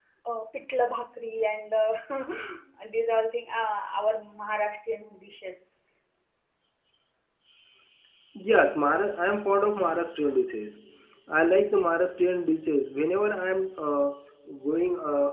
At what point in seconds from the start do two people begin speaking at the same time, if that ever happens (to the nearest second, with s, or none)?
none